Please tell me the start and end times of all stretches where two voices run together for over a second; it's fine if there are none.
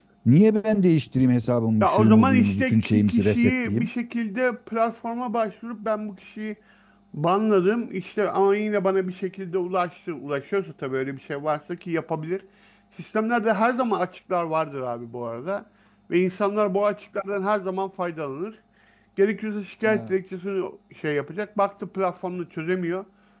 1.8-3.9

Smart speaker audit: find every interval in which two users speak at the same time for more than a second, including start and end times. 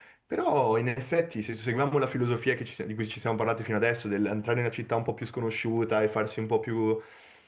none

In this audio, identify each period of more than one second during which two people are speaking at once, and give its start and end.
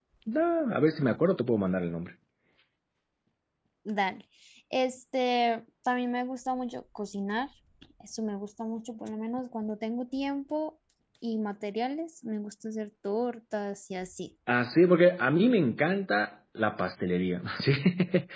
none

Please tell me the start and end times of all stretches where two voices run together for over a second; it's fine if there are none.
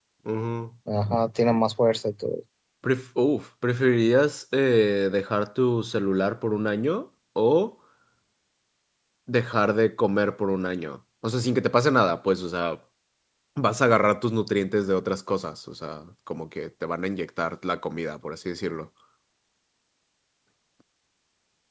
none

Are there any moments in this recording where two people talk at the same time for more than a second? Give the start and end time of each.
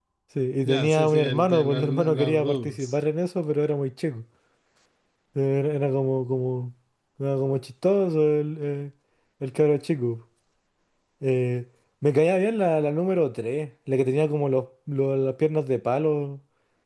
0.7-2.9

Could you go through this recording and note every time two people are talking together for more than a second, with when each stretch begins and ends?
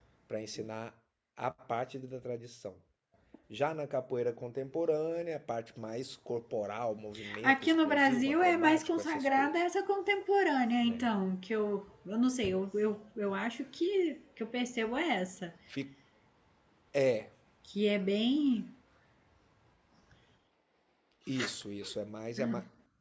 7.4-9.6

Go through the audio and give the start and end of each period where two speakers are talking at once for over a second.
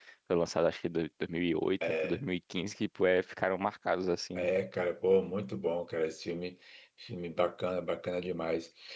none

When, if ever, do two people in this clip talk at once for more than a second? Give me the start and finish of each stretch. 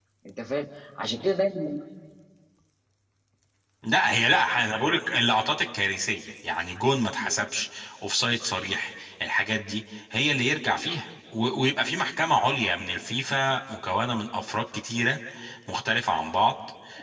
none

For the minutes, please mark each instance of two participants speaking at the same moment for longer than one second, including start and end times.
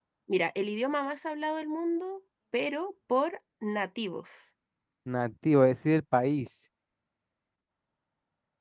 none

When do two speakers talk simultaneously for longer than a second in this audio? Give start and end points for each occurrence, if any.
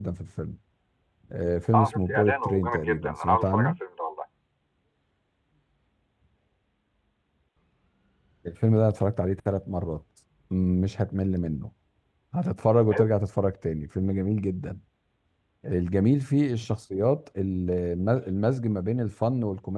1.7-3.7

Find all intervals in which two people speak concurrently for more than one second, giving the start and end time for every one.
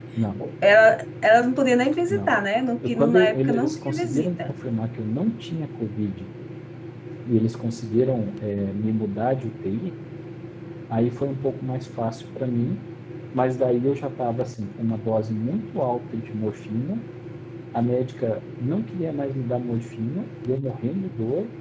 2.9-4.6

